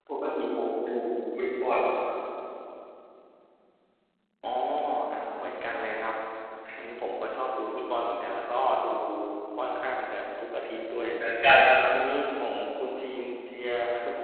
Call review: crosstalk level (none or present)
none